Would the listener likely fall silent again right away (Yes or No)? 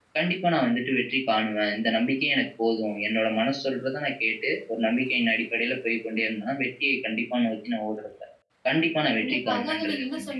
No